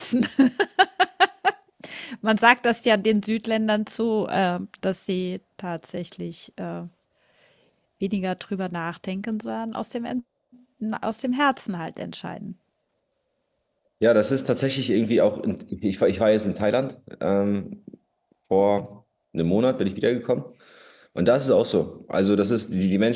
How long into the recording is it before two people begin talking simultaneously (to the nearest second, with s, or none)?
none